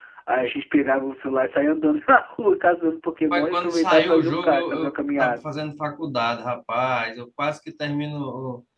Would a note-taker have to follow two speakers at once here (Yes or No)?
Yes